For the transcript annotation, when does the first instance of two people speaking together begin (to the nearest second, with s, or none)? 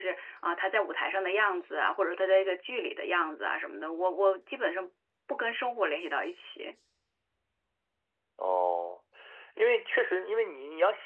none